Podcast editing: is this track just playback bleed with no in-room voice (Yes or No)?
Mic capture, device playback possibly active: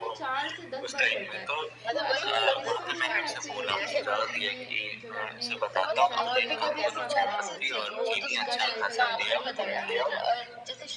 No